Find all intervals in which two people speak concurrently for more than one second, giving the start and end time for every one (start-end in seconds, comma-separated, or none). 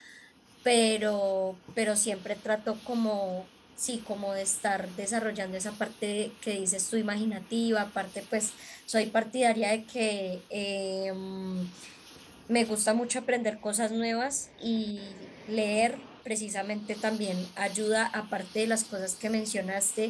none